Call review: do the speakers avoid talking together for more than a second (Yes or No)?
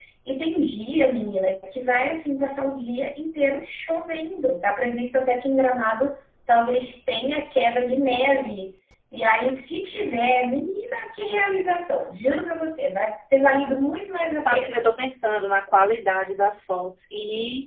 Yes